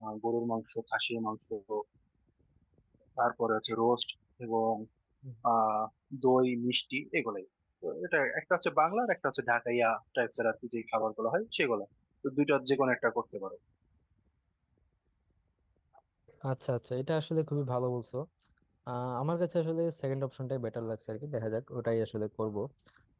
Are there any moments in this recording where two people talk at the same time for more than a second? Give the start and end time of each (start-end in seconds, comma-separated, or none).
none